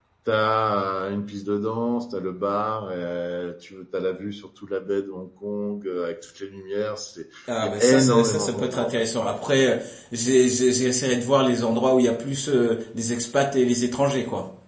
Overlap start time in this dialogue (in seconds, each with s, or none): 7.5 s